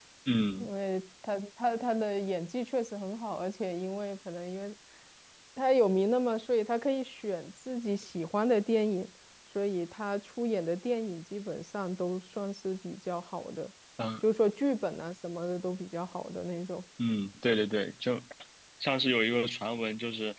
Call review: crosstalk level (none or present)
none